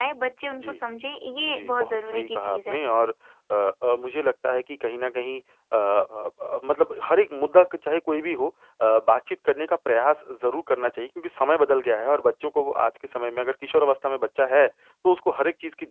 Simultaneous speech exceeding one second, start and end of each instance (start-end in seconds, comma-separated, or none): 1.5-2.8